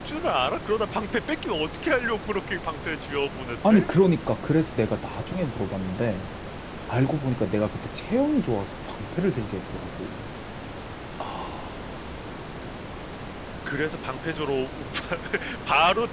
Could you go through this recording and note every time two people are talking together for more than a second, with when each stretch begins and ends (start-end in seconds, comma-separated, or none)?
none